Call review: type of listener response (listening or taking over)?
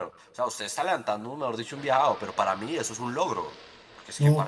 listening